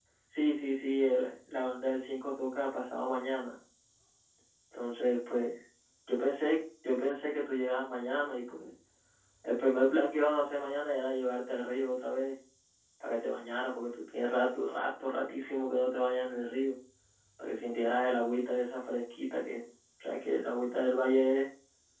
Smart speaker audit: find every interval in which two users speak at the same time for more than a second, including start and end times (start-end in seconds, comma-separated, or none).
none